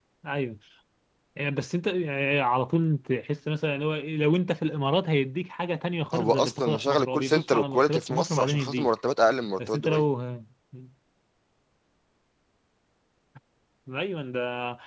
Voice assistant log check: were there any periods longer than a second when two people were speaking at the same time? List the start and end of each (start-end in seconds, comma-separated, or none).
6.1-8.9